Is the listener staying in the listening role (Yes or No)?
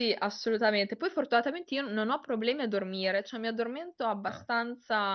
Yes